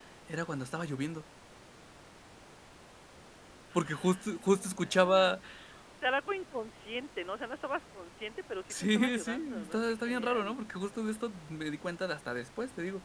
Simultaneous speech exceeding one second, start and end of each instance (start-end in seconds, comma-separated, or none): 3.8-5.3, 8.7-10.6